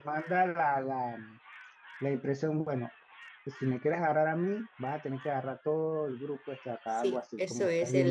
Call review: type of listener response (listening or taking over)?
taking over